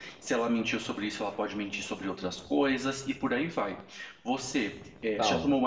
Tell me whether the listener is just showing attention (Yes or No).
Yes